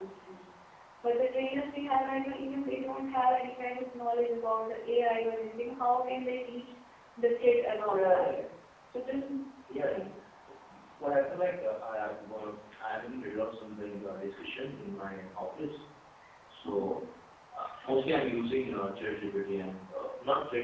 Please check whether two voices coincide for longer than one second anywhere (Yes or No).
No